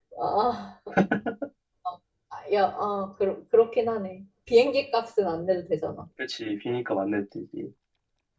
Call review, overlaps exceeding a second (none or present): none